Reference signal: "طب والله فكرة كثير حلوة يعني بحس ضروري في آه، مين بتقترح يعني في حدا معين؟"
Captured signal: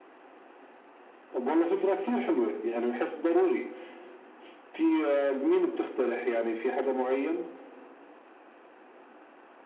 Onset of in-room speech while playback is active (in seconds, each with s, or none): none